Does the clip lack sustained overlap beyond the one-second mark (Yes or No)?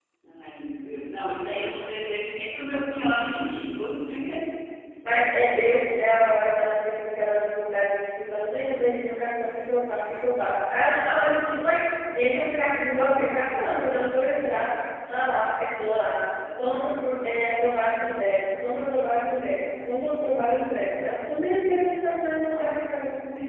Yes